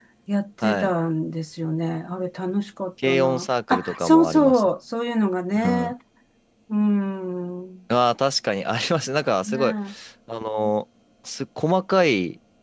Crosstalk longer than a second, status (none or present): present